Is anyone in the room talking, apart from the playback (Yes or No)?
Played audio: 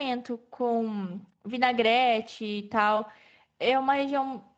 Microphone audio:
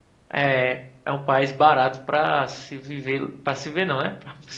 Yes